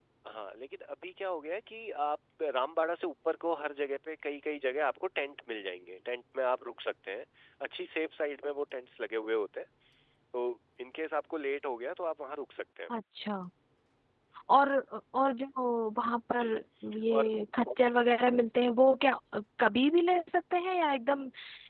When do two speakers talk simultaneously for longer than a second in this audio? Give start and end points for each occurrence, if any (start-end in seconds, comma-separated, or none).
none